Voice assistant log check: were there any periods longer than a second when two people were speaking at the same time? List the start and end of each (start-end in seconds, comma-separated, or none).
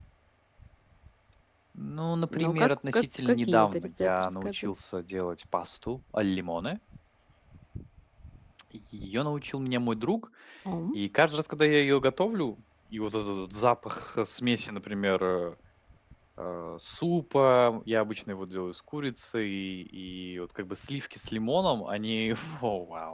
2.3-4.7